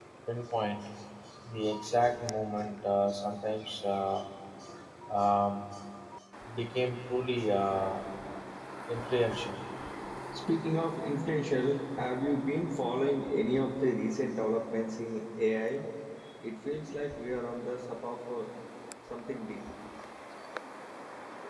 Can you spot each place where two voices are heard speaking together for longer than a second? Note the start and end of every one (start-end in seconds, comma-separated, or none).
none